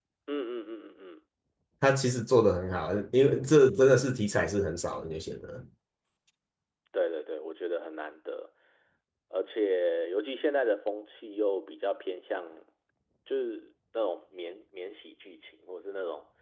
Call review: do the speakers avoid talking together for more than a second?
Yes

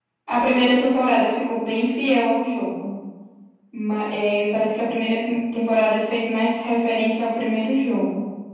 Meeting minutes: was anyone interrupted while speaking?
No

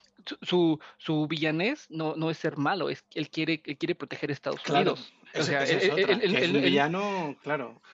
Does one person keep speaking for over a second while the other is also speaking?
Yes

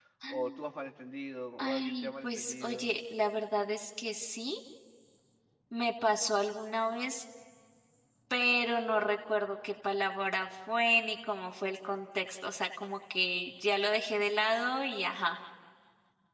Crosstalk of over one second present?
Yes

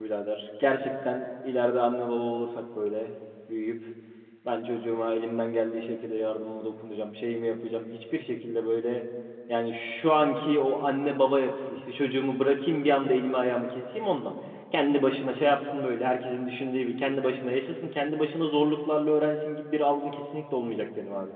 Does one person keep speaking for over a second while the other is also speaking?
No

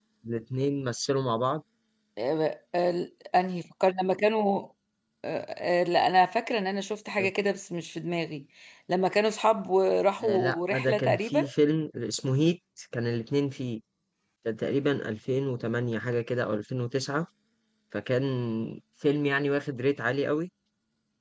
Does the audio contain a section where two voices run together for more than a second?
Yes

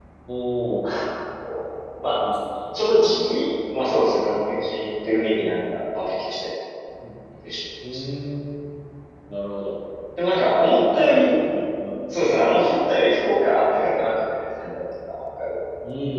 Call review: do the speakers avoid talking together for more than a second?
Yes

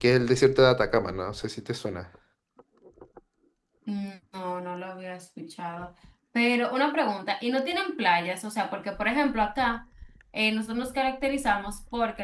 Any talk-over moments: No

